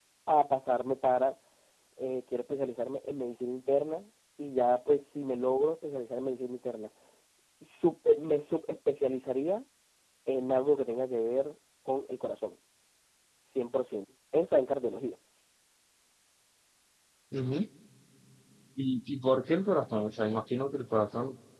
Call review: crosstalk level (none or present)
none